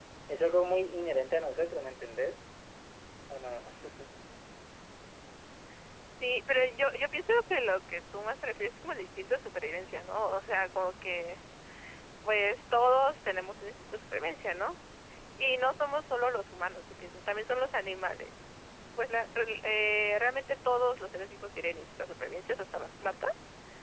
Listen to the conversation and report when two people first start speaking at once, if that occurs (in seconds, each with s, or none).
none